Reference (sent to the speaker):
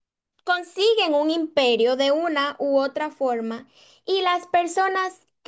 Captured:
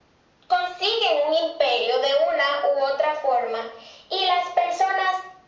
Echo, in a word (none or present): present